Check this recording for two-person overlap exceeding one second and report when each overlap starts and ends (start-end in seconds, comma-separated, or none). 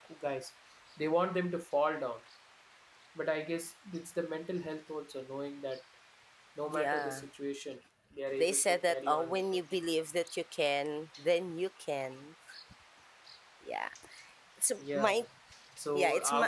8.4-9.6